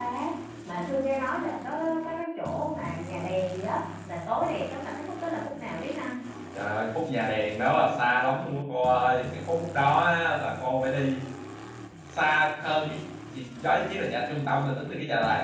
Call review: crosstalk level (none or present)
none